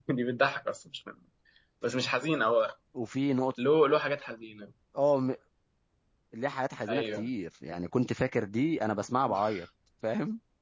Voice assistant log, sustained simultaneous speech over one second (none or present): none